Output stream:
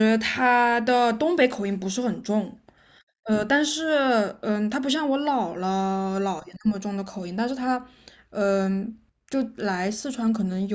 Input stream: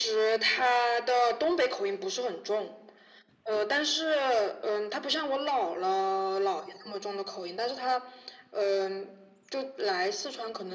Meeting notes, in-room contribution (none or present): none